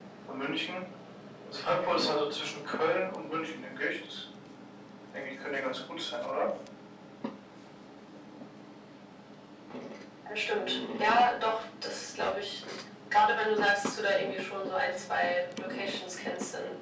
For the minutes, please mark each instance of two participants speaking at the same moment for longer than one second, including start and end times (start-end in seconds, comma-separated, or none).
none